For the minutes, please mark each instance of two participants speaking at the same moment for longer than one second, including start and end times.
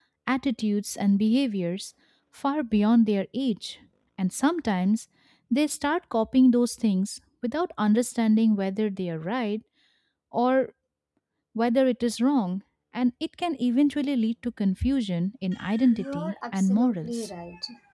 15.9-17.3

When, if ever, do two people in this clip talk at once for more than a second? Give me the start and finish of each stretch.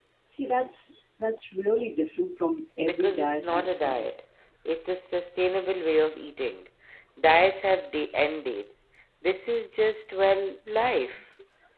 2.9-4.1

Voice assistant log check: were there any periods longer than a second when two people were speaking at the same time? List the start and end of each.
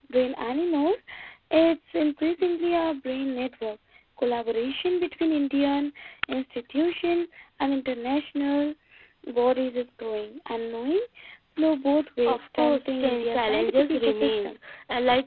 12.3-14.6

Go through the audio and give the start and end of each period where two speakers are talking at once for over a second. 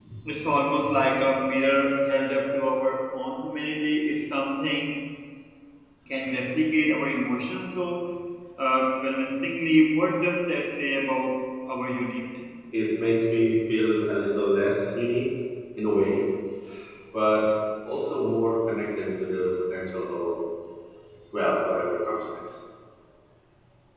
none

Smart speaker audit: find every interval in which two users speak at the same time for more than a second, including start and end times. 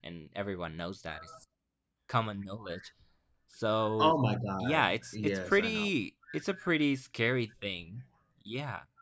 4.6-5.9

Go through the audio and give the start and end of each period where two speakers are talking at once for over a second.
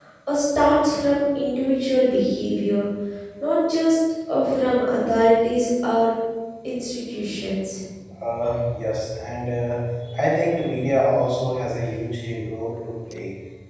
none

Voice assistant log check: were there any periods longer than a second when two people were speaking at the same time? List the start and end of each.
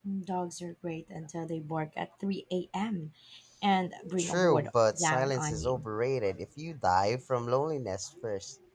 4.2-5.8

